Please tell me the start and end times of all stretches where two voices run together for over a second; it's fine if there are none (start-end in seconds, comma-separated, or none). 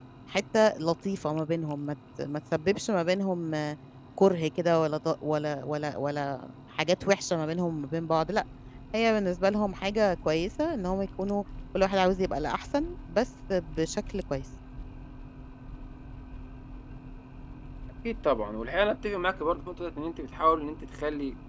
none